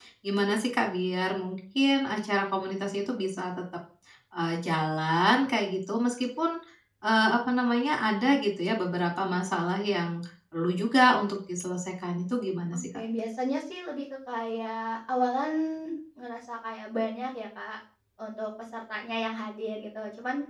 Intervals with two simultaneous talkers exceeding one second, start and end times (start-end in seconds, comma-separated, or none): none